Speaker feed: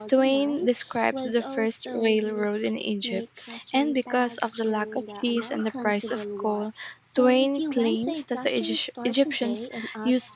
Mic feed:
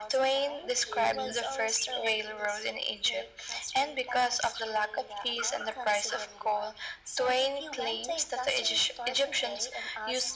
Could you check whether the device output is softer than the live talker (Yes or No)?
No